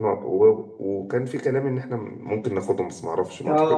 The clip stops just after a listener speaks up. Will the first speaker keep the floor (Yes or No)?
No